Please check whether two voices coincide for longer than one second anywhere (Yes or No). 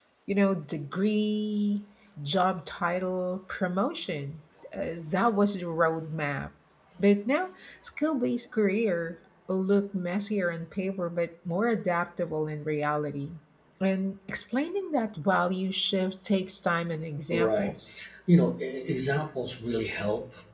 No